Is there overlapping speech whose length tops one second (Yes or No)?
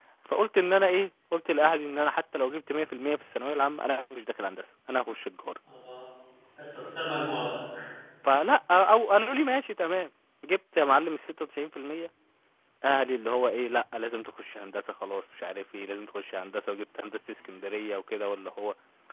No